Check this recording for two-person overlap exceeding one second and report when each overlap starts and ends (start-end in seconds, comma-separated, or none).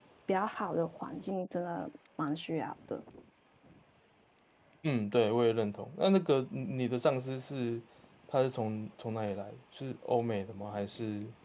none